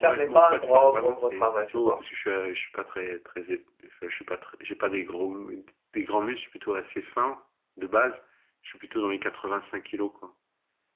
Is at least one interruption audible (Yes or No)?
Yes